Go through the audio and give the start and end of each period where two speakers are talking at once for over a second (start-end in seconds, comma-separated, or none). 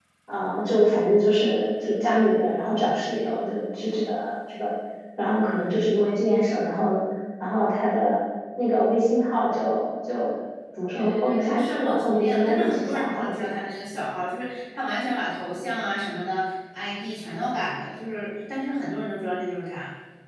11.0-13.6